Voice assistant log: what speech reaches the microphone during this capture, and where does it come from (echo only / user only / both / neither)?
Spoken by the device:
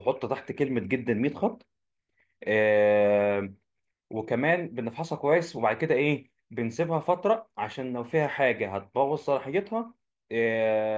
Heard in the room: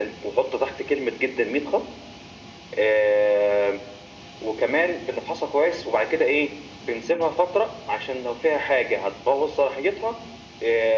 echo only